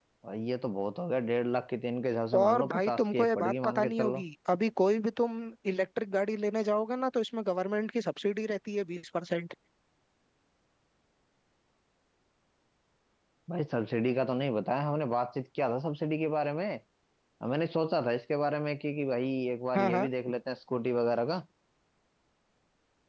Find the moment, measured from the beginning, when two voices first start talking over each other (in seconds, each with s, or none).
2.3 s